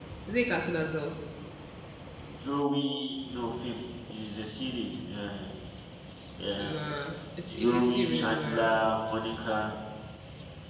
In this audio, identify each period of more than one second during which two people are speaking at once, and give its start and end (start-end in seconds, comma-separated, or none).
7.5-8.7